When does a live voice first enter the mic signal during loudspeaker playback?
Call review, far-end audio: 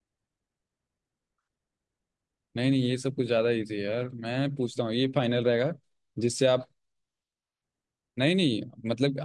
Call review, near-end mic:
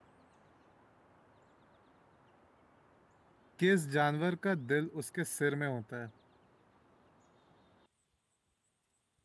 3.6 s

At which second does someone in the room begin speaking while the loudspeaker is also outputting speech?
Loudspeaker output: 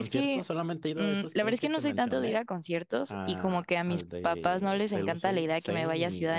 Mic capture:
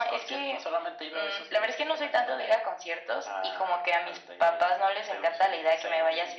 none

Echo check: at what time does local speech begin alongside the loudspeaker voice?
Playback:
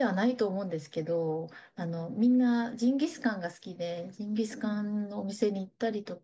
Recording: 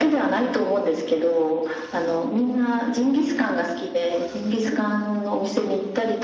none

